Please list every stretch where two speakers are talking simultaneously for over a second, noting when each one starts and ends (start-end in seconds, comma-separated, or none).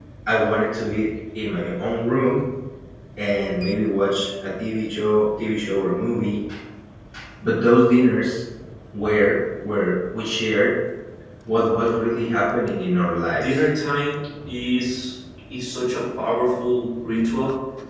none